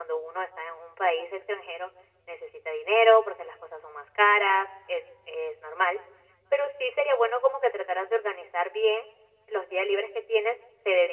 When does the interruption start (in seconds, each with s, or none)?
none